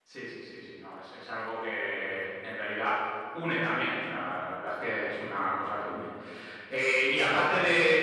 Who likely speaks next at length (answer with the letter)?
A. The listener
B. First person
B